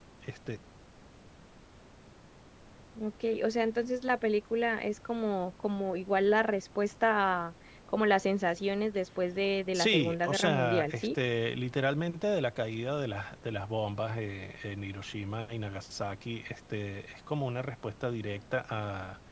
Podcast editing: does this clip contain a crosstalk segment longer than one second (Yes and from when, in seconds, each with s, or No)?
Yes, from 9.7 s